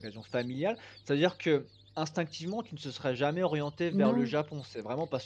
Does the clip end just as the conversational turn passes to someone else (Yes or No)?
No